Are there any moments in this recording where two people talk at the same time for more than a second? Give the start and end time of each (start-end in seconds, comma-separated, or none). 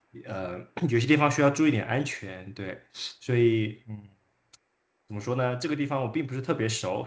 none